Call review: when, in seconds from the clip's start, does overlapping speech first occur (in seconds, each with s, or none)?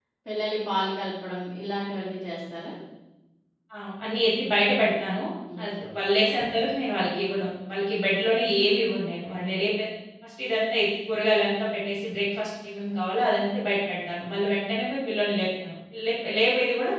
none